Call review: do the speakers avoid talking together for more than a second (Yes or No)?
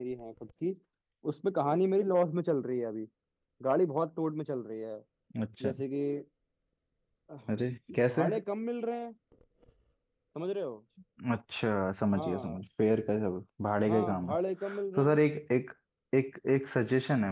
Yes